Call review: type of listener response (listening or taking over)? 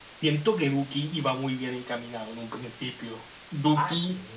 taking over